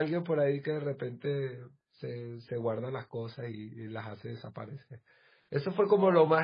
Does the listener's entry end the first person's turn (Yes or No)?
No